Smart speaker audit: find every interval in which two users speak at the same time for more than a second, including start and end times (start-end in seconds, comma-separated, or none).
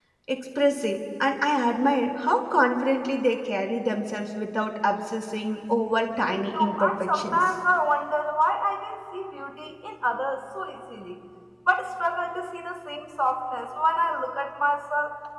6.2-7.5